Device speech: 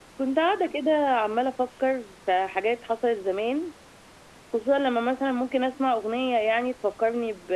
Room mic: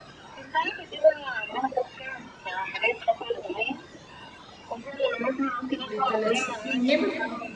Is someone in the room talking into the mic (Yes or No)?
Yes